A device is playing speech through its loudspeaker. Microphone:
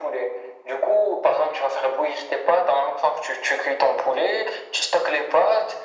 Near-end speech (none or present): none